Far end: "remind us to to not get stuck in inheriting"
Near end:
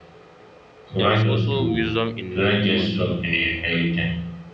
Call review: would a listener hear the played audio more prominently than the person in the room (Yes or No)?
Yes